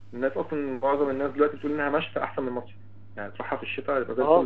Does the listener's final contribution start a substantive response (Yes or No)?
Yes